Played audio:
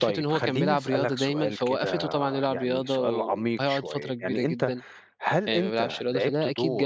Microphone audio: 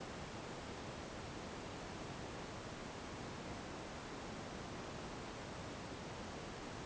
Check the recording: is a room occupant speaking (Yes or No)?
No